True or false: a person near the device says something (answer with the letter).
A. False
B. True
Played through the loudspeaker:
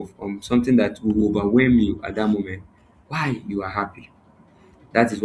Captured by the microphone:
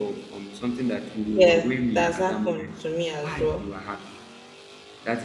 B